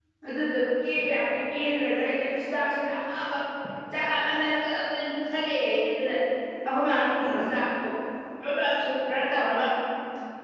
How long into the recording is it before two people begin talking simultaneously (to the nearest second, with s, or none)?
none